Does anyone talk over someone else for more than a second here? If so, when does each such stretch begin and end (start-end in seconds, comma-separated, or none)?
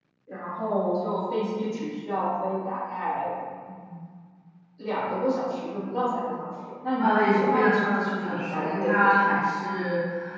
7.0-9.2